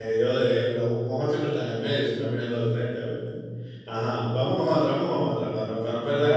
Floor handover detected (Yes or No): Yes